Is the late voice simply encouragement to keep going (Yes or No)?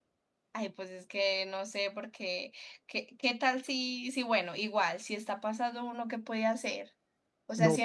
Yes